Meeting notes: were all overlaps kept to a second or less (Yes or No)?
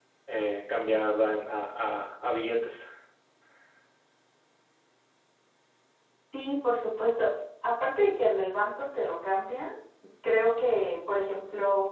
Yes